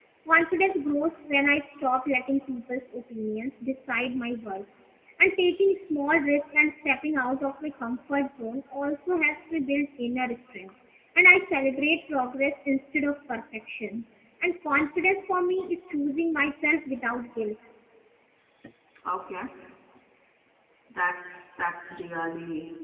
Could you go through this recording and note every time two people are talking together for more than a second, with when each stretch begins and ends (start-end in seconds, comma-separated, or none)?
none